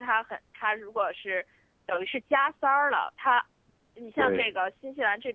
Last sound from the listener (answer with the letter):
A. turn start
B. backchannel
B